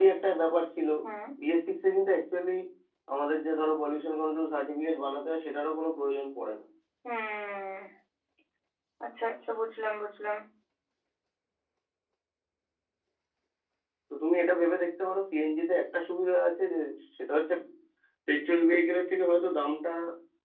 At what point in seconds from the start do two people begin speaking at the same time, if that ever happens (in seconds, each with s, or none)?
none